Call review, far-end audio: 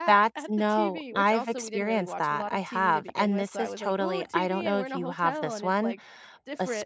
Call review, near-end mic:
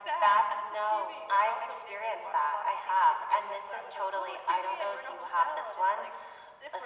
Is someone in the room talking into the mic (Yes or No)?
No